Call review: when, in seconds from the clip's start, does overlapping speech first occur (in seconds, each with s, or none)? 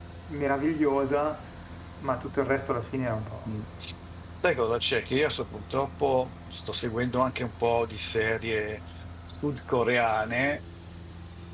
none